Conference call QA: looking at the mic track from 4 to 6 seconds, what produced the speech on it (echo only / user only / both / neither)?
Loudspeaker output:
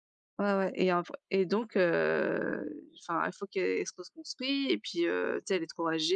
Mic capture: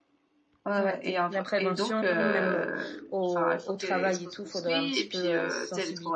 both